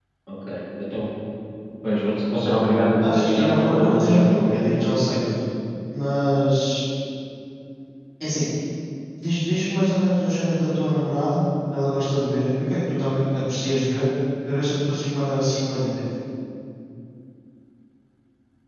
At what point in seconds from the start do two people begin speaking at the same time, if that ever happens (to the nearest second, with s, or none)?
3 s